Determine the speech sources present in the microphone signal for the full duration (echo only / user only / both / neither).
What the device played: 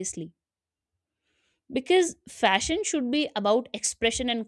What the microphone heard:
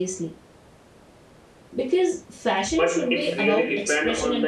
both